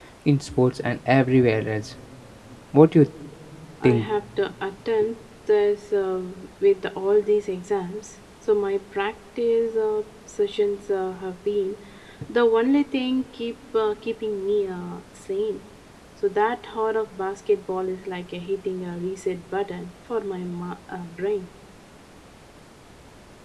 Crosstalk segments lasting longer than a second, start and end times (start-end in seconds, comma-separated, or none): none